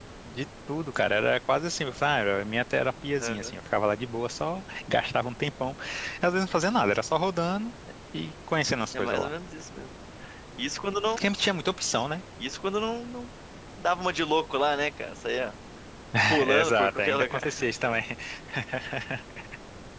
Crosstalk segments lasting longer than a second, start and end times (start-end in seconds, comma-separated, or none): 16.5-17.7